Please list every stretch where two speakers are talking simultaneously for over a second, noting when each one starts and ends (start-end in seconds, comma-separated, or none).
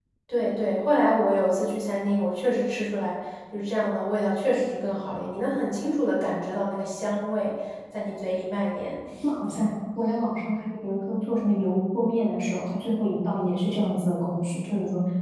none